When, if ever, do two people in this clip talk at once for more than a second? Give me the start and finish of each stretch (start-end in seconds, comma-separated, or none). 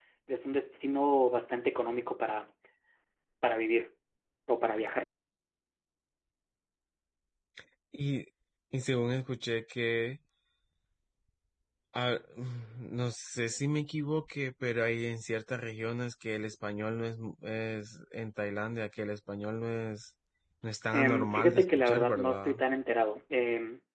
20.9-22.6